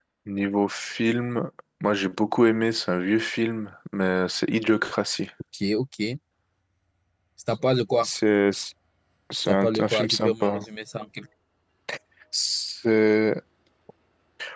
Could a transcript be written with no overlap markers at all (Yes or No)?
No